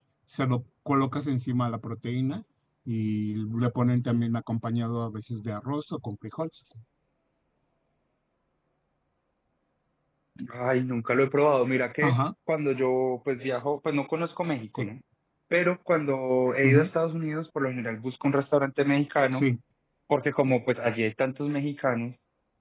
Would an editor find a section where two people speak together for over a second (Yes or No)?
No